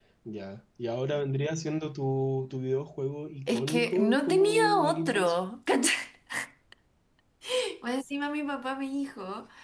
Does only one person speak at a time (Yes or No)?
No